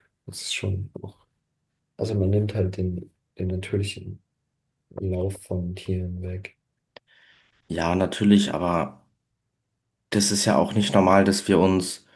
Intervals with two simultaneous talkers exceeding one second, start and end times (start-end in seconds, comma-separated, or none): none